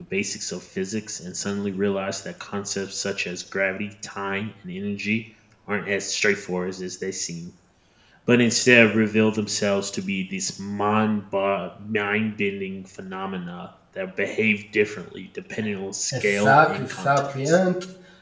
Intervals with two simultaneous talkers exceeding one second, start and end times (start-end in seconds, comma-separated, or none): 16.2-17.6